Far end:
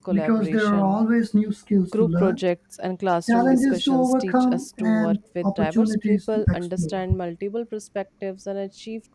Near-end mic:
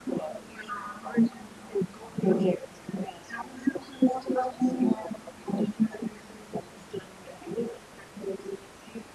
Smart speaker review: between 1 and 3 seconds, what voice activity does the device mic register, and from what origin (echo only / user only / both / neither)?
echo only